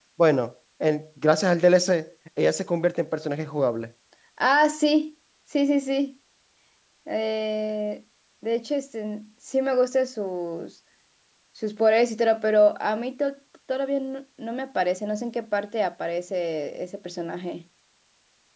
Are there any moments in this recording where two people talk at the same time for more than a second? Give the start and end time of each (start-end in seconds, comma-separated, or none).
none